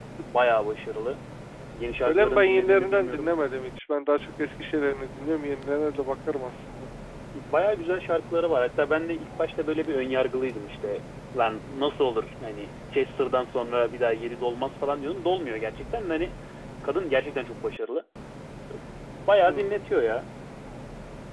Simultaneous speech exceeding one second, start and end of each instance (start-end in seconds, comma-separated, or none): 2.1-3.3